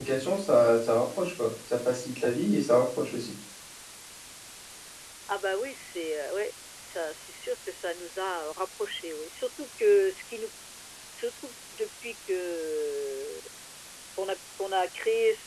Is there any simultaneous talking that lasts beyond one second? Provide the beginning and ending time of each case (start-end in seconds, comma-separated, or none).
none